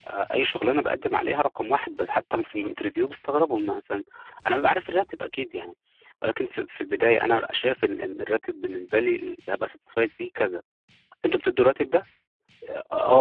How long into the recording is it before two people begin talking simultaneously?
none

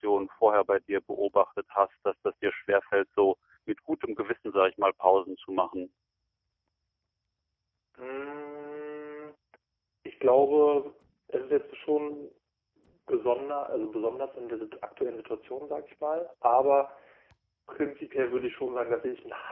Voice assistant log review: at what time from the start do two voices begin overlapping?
none

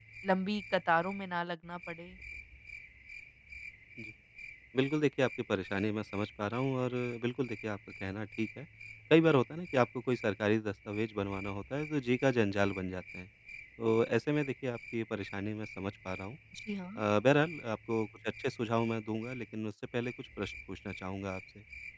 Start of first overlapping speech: none

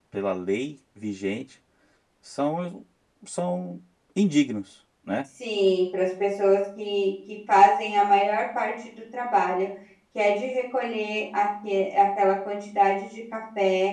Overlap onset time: none

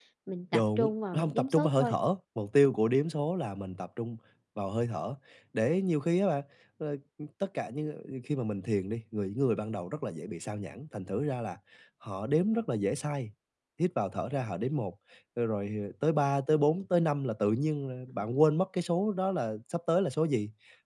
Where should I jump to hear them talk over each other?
0.5 s

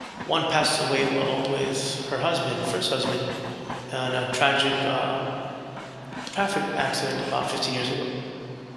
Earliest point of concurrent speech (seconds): none

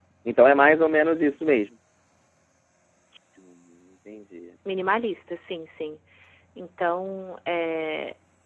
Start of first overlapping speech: none

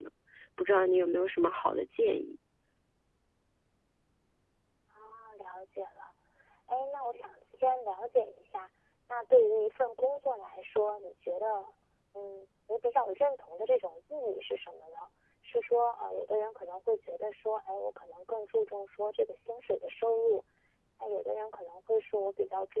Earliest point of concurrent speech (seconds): none

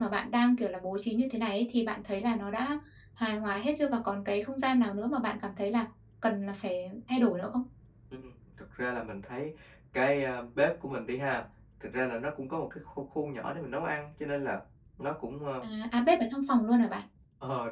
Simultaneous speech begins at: none

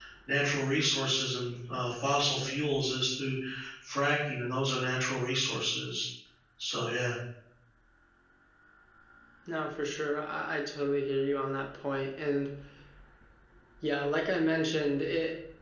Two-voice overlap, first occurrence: none

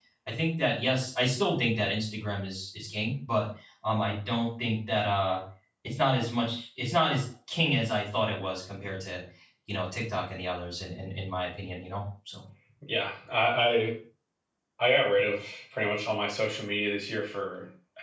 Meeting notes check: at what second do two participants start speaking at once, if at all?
none

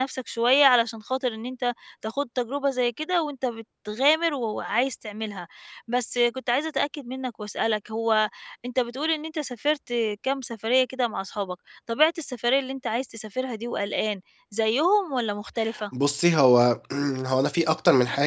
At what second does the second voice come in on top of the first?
none

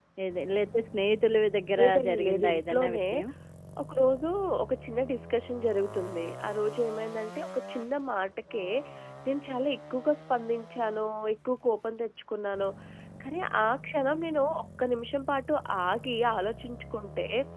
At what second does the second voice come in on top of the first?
1.7 s

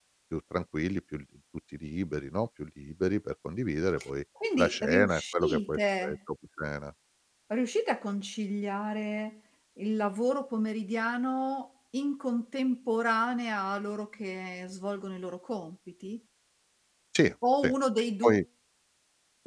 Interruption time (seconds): 4.6 s

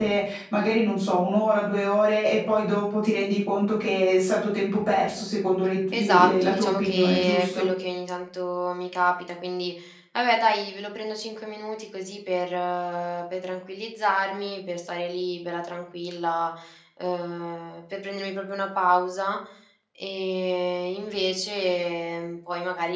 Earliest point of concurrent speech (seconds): 5.9 s

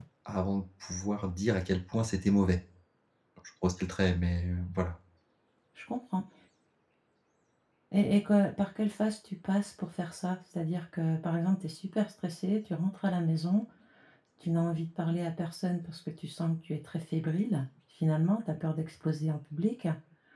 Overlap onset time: none

